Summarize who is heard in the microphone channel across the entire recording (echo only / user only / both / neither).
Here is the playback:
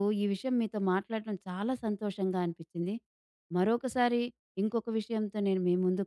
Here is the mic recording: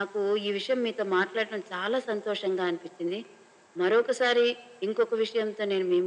echo only